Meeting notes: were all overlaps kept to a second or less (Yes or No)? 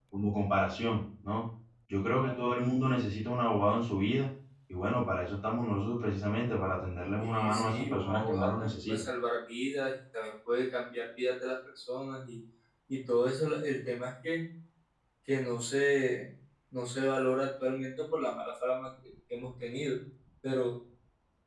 No